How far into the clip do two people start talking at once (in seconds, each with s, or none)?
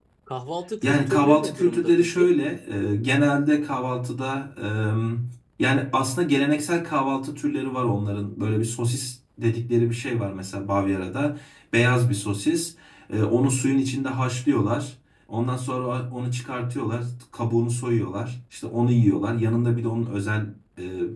0.8 s